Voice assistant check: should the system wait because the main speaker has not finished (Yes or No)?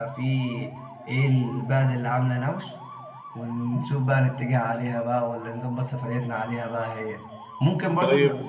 Yes